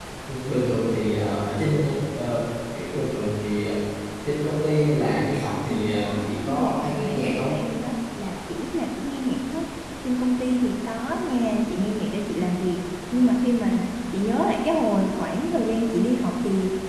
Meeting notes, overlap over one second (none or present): present